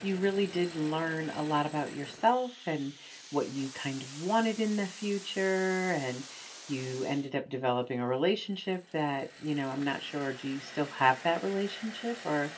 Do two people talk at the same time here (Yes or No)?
No